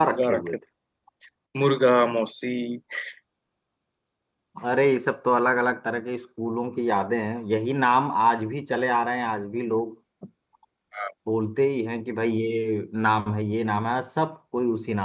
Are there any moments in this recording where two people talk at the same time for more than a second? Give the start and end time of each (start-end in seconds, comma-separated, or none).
none